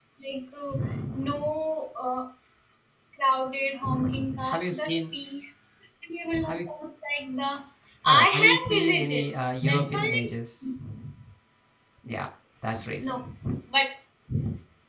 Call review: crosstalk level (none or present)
present